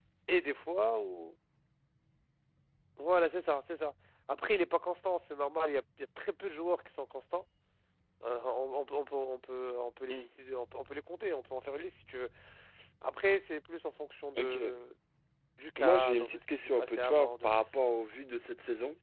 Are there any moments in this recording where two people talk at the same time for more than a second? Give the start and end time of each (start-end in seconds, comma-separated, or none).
15.8-17.5